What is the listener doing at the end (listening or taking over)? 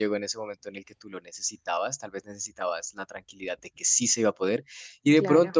listening